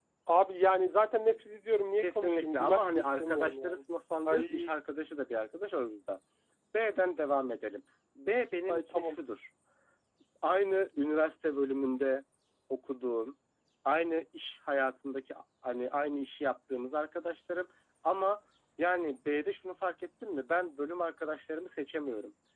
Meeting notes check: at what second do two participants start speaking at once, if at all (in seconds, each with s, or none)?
2.0 s